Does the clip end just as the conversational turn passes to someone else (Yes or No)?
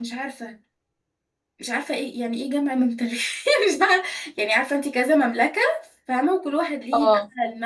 No